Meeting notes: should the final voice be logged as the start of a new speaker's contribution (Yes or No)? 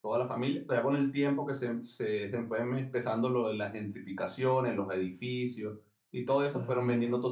No